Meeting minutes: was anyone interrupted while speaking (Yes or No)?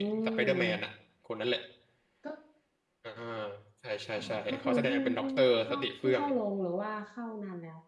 Yes